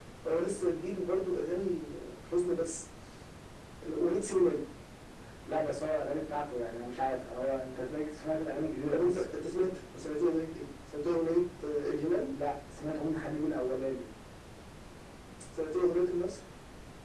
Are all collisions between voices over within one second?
Yes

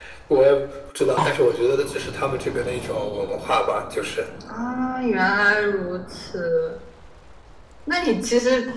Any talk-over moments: No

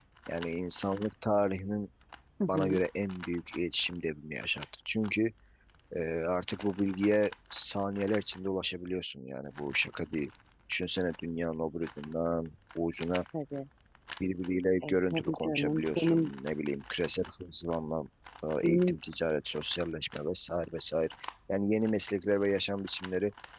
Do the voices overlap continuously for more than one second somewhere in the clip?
Yes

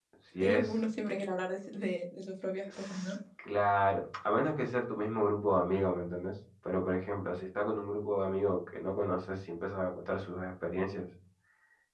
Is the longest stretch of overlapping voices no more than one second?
Yes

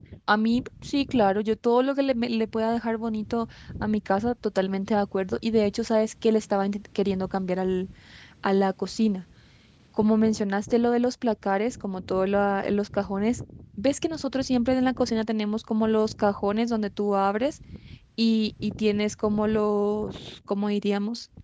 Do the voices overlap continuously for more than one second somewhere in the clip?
No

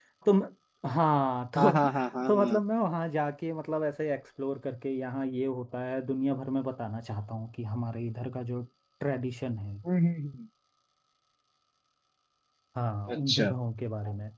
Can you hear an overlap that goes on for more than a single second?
No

